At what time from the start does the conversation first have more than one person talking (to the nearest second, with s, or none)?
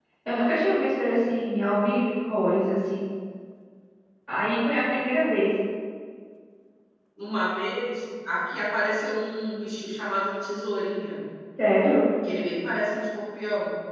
none